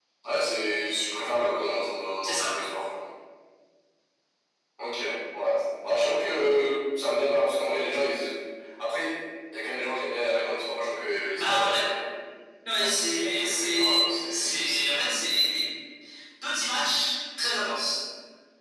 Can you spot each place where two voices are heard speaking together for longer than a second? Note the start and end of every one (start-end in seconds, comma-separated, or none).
12.8-15.4